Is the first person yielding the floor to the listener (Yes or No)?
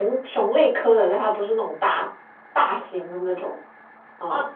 Yes